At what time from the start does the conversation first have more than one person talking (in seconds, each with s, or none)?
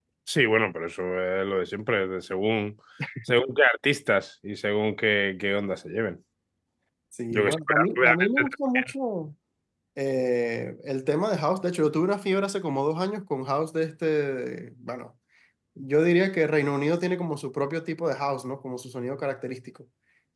7.3 s